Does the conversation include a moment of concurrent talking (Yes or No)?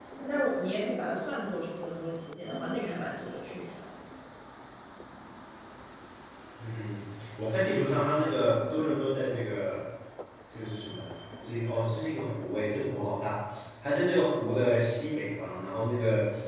No